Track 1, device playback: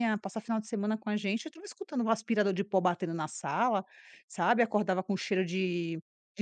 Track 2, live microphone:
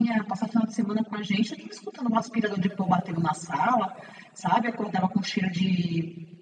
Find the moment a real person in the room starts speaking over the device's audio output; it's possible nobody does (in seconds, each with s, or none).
none